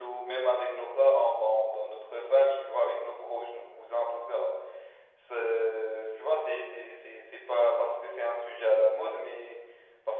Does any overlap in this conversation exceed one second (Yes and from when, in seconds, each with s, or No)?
No